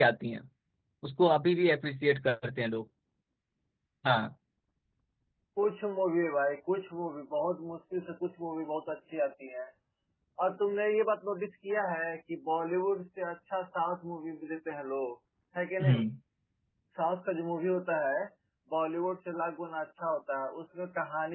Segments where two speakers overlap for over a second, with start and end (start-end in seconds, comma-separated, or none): none